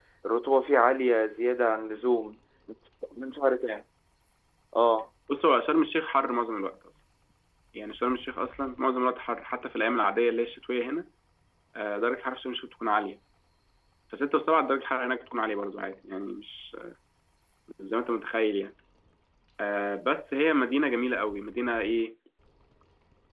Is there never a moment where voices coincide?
Yes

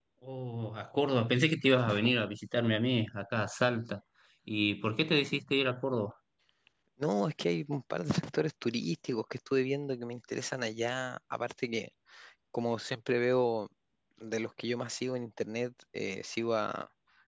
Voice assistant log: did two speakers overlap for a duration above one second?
No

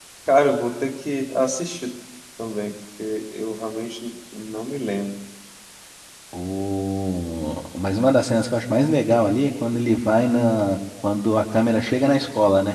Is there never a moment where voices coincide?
Yes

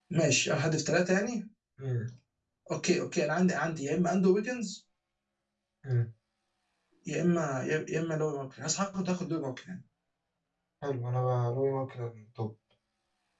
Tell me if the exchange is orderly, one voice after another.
Yes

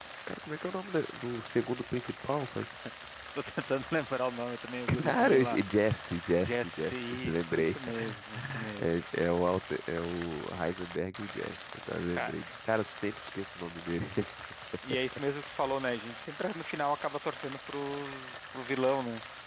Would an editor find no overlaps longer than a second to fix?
No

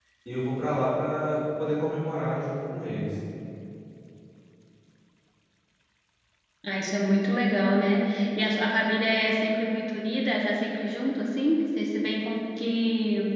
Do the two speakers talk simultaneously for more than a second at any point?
No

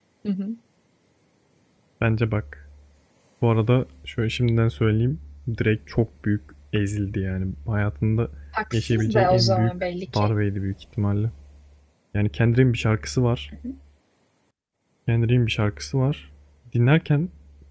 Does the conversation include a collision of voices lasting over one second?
Yes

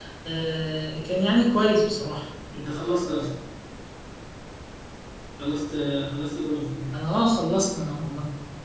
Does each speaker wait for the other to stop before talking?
Yes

